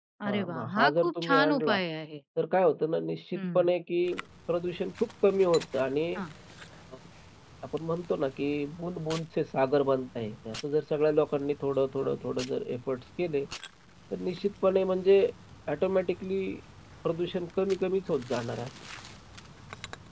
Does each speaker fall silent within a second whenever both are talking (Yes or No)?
No